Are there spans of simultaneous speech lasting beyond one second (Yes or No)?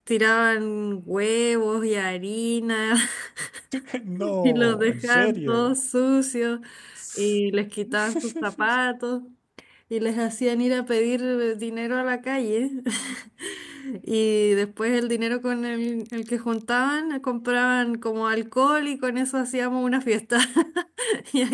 Yes